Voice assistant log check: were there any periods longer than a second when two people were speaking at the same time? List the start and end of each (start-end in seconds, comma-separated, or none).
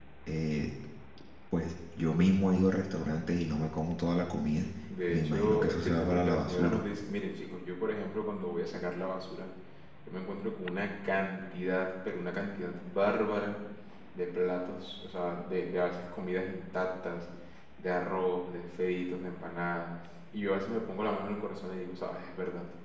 5.1-6.8